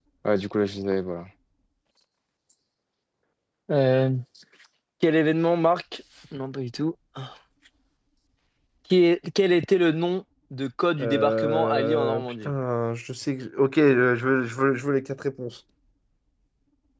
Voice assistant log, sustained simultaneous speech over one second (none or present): present